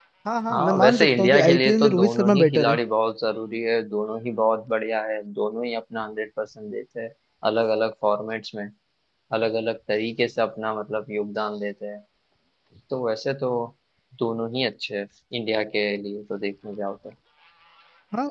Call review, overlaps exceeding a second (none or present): present